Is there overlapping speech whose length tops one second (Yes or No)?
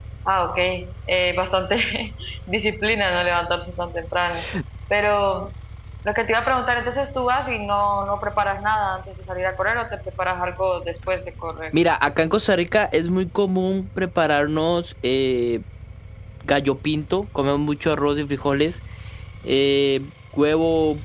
No